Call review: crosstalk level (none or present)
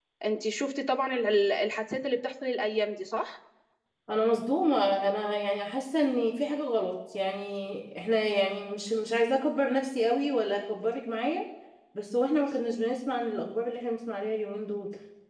none